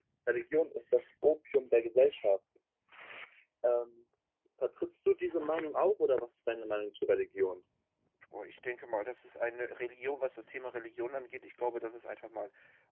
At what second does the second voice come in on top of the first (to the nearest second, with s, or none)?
none